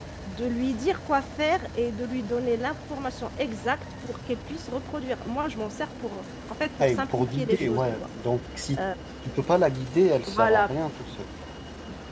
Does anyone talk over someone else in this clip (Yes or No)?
Yes